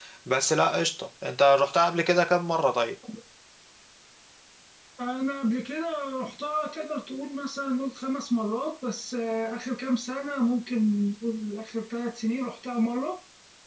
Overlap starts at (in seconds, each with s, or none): none